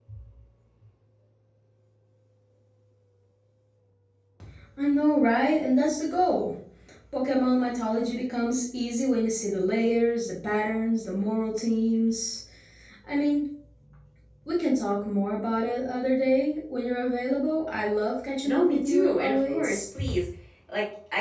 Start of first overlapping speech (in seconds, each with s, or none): 18.4 s